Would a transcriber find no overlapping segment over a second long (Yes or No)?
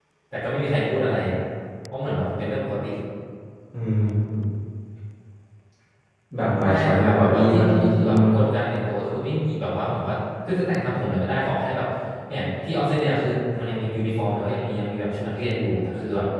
No